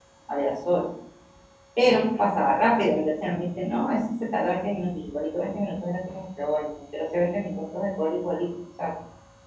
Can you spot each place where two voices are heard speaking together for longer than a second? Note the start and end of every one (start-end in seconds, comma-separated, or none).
none